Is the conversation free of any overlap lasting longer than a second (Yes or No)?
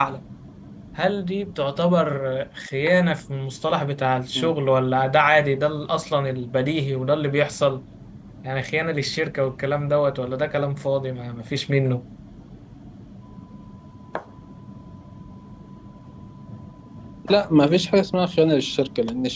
Yes